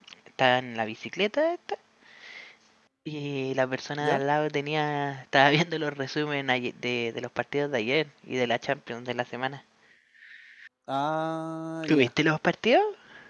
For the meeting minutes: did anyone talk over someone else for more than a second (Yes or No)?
No